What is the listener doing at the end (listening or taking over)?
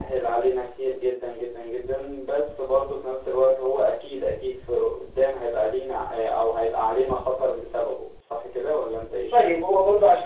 taking over